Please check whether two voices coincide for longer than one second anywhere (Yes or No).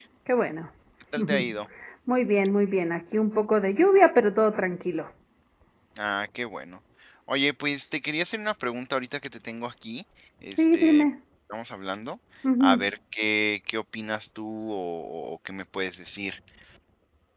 No